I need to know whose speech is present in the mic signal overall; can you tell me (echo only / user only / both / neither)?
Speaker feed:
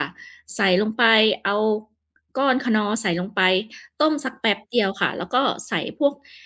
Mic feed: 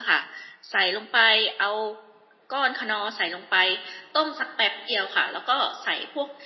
echo only